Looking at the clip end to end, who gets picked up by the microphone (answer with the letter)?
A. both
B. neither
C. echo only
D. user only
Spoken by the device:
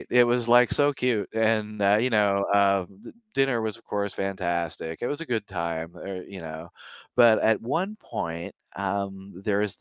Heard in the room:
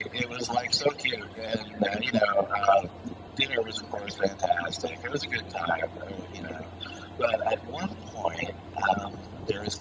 C